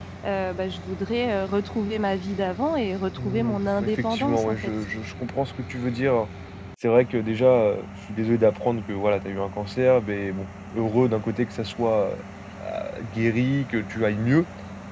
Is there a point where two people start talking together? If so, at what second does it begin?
3 s

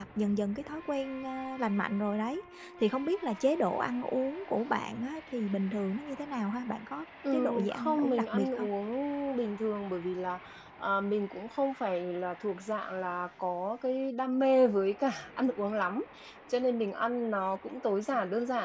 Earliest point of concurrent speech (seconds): 7 s

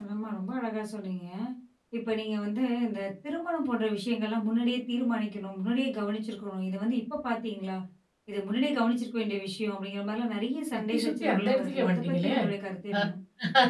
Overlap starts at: 11 s

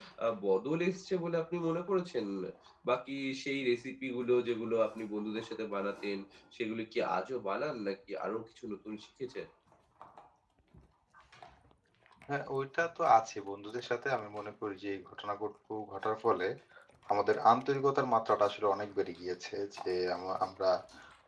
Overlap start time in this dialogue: none

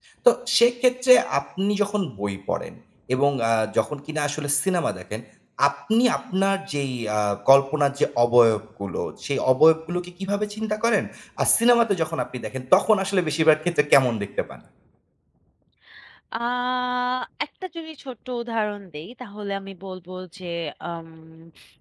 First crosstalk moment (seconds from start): none

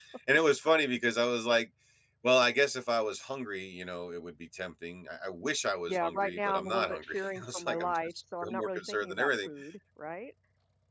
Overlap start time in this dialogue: 6 s

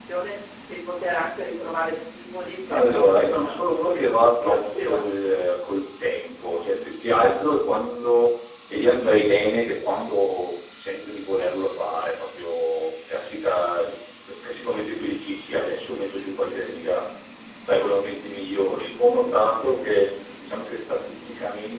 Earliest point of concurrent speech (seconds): 3 s

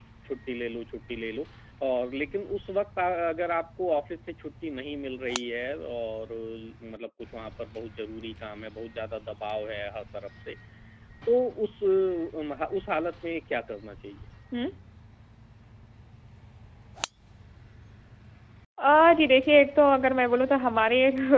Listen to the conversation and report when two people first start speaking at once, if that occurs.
none

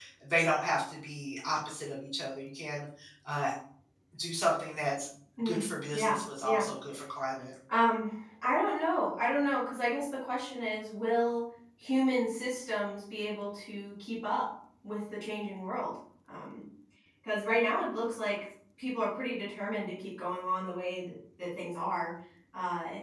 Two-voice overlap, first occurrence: 5 s

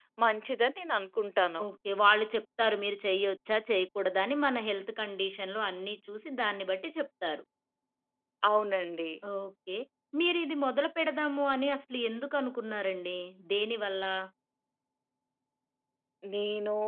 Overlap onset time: none

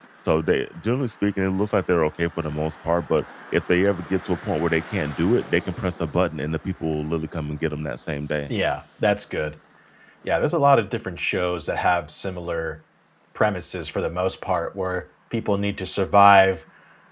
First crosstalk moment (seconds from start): none

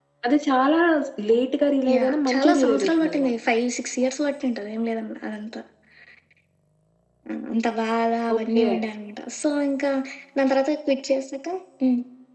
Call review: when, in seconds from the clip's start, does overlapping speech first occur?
2 s

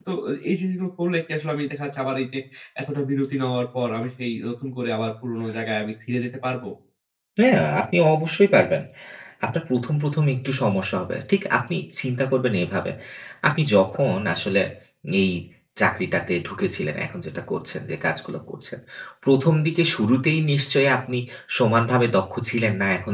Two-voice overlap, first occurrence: none

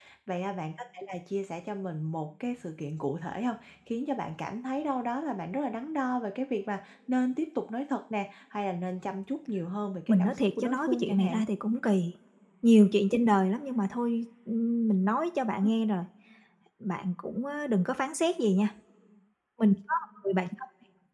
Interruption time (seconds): 10 s

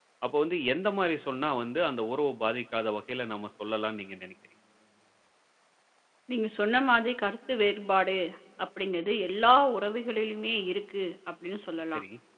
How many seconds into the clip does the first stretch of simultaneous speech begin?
none

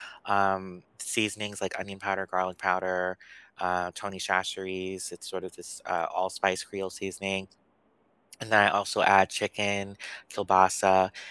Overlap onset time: none

